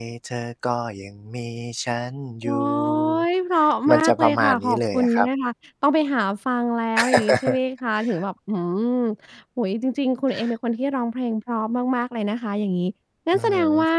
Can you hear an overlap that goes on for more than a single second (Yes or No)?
Yes